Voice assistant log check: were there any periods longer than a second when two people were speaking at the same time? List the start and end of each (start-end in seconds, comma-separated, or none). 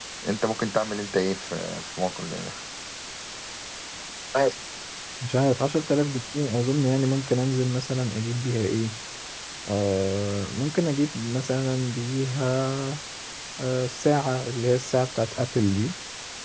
none